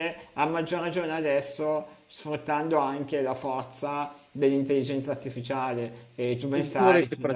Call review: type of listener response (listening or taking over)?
taking over